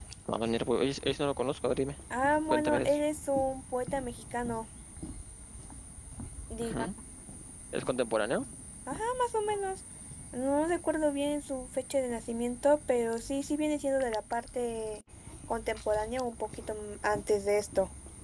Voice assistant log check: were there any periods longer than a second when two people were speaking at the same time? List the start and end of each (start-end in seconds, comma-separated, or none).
none